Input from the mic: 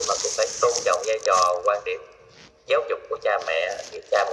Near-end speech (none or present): none